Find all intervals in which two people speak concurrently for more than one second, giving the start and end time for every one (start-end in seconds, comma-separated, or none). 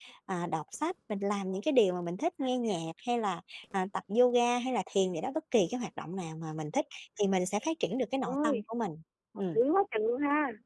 none